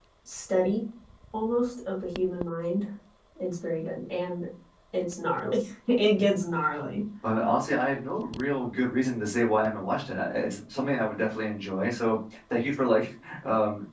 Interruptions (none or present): none